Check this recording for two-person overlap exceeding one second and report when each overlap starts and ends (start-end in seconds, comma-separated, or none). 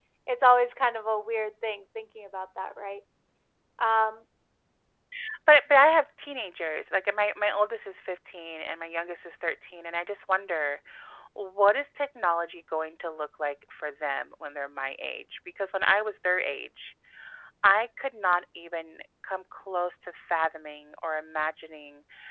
none